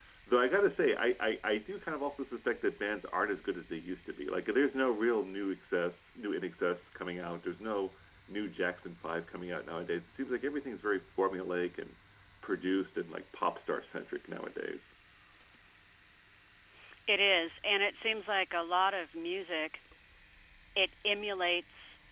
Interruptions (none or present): none